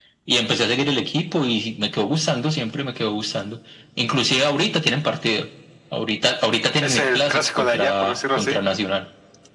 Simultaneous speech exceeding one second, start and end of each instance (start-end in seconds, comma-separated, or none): 6.8-8.6